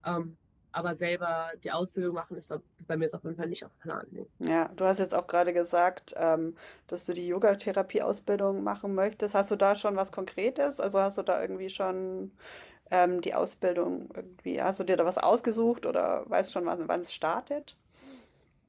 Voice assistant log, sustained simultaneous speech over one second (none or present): none